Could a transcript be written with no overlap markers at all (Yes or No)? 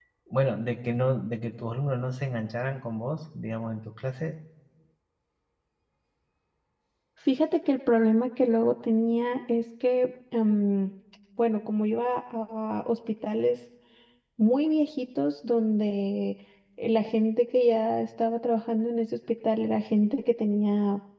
Yes